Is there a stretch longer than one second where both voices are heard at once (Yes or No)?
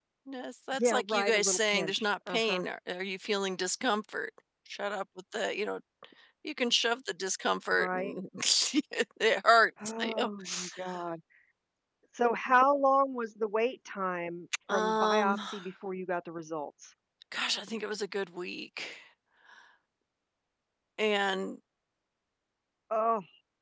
Yes